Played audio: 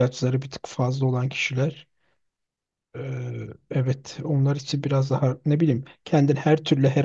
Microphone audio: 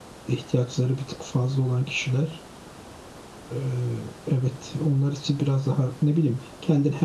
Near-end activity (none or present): none